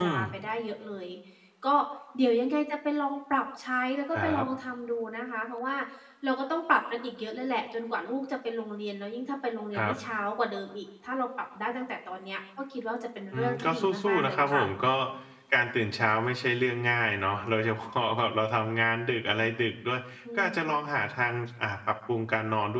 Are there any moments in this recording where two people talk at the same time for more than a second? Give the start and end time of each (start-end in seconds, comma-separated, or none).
13.3-14.6